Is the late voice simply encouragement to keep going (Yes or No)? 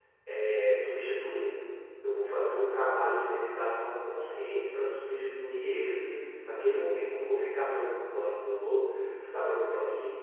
Yes